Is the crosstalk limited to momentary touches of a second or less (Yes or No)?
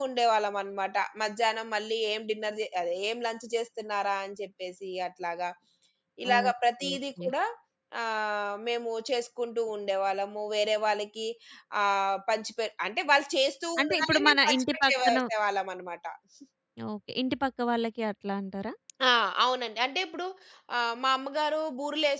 No